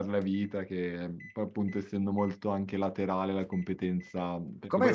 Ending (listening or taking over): taking over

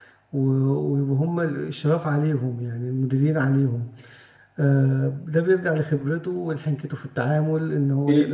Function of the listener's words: listening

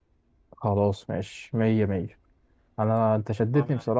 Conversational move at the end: listening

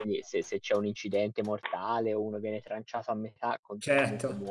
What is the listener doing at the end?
listening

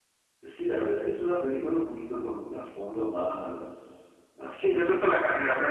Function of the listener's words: taking over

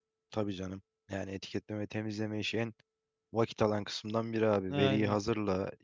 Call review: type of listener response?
listening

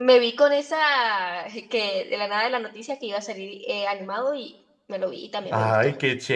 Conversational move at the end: taking over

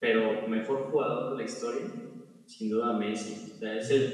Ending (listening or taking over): listening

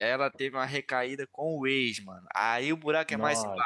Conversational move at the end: listening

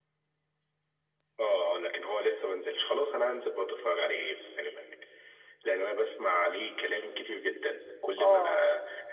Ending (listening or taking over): listening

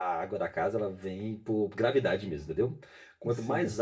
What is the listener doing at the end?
listening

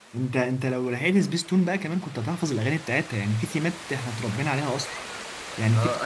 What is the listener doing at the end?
taking over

